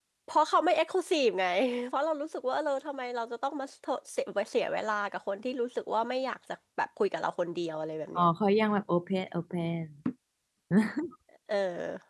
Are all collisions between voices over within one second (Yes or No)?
Yes